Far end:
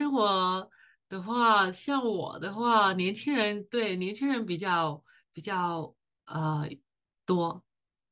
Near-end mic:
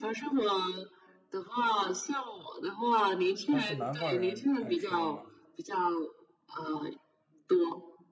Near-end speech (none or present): present